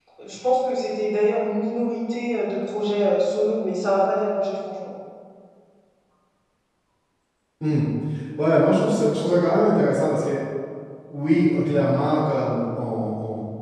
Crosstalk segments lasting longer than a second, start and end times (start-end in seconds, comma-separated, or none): none